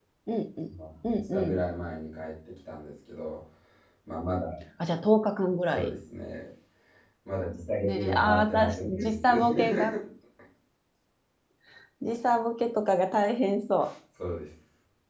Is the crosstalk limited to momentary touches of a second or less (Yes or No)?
No